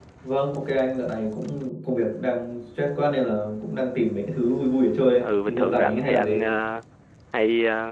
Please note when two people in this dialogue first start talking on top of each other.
5.2 s

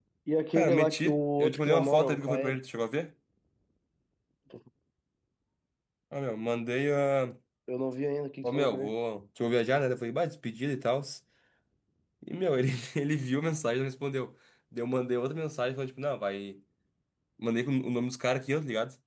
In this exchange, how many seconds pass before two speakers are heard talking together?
0.6 s

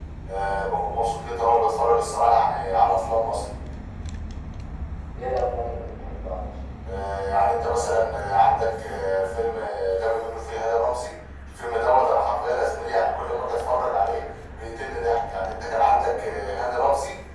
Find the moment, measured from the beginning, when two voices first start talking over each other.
none

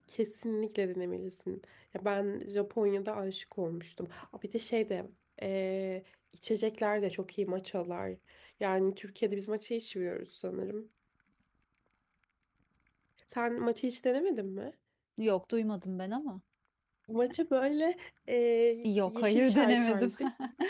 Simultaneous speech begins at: 18.8 s

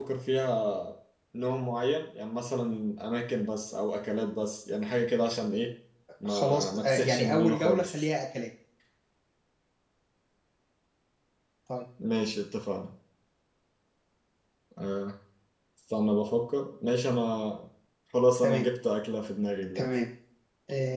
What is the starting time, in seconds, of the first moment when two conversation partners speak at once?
6.3 s

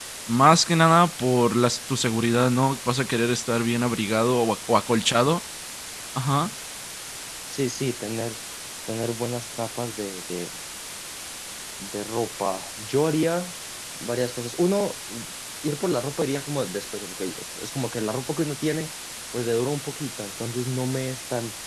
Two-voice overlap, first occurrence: none

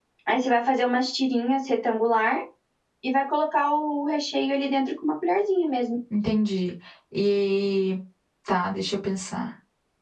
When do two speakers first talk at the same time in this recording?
none

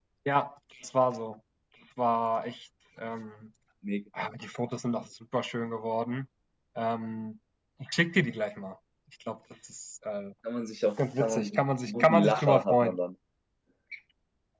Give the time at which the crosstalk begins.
11.0 s

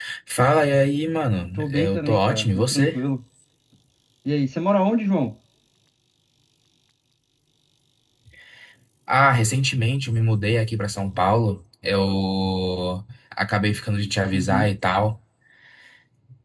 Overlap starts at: 1.6 s

